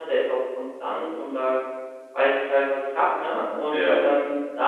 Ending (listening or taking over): listening